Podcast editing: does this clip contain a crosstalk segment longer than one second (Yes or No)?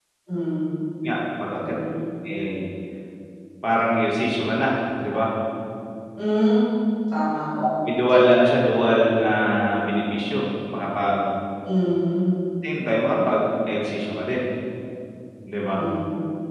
No